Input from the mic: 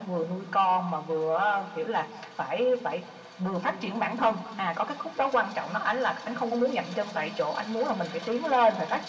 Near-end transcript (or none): none